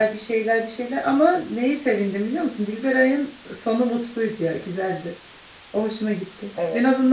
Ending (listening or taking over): listening